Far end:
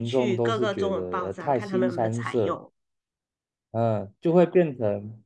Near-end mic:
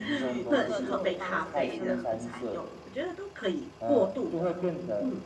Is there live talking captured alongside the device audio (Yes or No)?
Yes